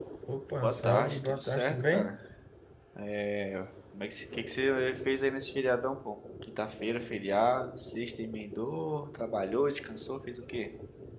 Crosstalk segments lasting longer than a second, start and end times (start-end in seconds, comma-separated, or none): 0.6-2.2